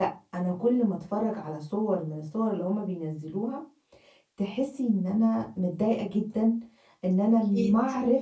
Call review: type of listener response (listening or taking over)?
listening